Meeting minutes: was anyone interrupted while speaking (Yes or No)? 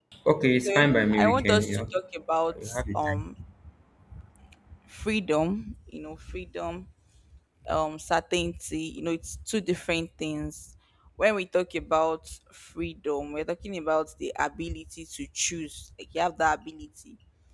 Yes